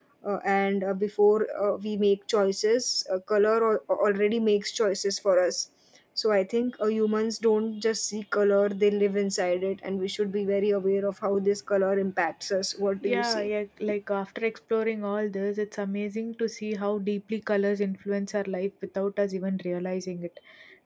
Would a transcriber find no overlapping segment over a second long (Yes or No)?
Yes